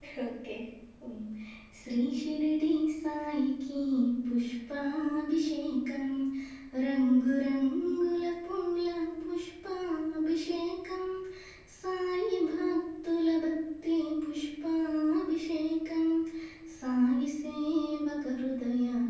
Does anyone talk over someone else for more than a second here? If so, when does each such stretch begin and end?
none

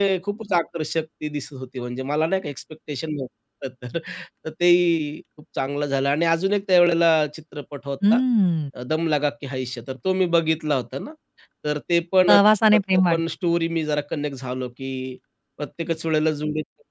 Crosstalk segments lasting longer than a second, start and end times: none

